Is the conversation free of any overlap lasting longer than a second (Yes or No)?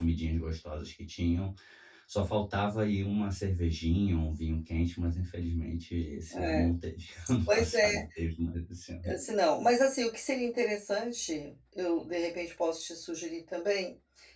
Yes